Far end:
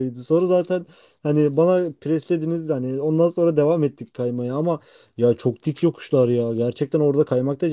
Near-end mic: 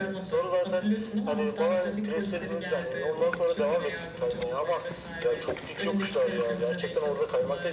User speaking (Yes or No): Yes